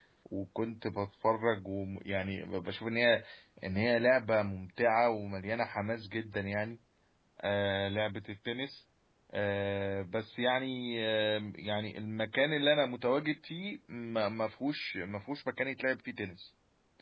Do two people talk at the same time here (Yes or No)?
No